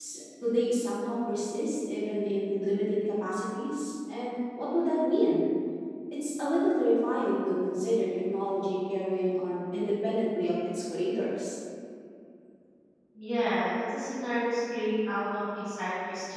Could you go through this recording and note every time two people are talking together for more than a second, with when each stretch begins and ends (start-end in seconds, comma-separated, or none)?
none